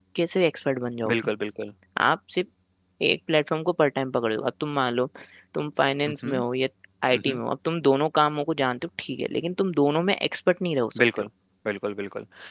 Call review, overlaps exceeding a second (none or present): none